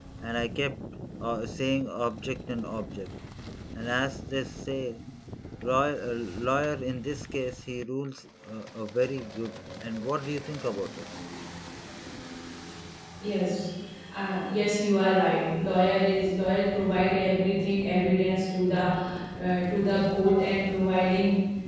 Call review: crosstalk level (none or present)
none